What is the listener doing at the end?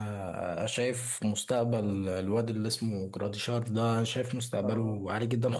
listening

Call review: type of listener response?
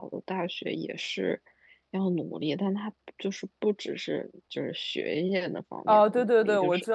taking over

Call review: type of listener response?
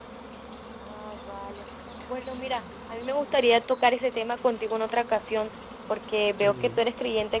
listening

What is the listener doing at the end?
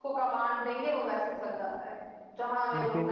listening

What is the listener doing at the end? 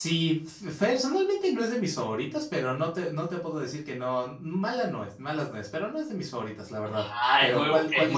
taking over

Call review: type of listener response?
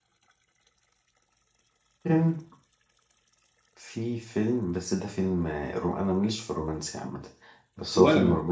listening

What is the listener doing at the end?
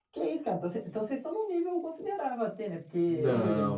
taking over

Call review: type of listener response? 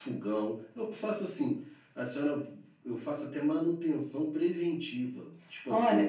taking over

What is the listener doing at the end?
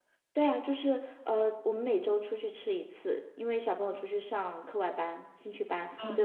listening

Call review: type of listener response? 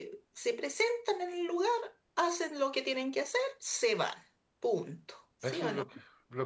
taking over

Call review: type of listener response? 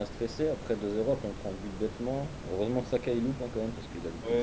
taking over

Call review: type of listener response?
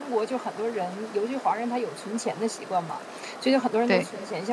listening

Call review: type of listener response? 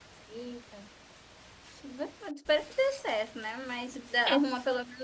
listening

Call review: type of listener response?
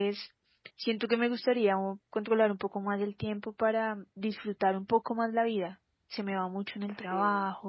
listening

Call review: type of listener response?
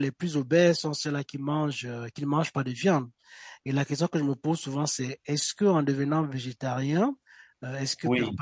listening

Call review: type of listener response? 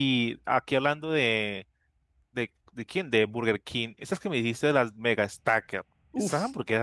listening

